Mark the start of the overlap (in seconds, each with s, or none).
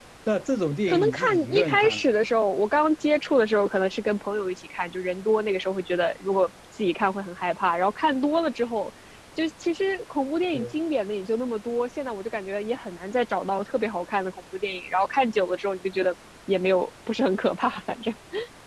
0.9 s